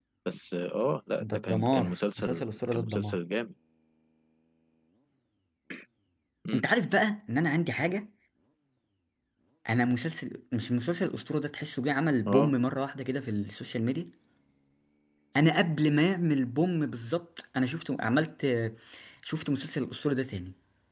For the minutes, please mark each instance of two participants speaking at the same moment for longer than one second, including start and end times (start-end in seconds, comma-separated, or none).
1.2-3.2